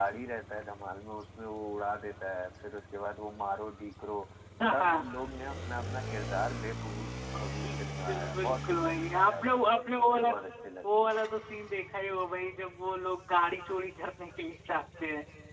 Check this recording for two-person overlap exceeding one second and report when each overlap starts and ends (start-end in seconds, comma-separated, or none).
7.6-9.6